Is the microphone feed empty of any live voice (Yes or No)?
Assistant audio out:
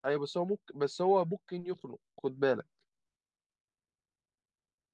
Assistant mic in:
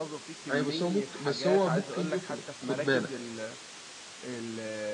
No